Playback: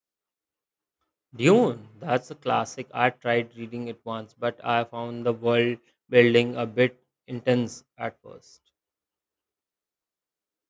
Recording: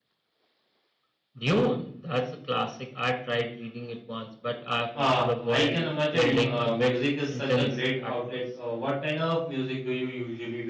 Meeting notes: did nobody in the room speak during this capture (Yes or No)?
No